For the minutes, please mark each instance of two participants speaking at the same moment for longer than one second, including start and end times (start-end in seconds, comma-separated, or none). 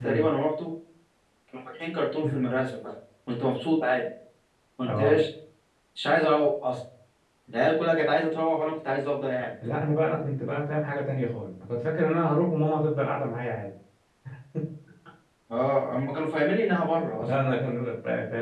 none